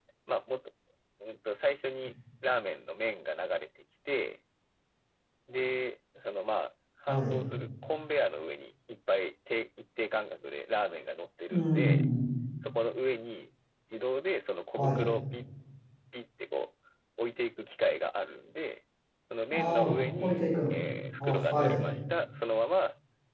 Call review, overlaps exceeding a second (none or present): present